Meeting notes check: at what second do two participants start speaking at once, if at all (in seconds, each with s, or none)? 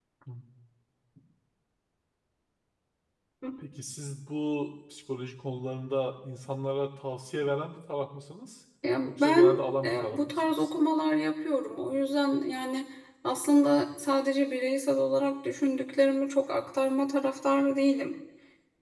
9.0 s